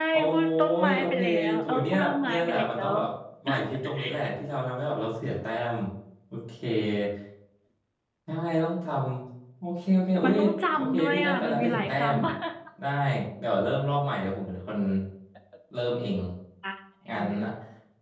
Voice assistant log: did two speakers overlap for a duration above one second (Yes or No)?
Yes